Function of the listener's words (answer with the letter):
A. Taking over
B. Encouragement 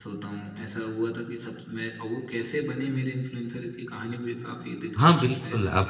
A